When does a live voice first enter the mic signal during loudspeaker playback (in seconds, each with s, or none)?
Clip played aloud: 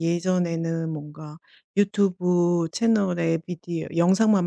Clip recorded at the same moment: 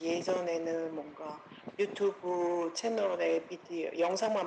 none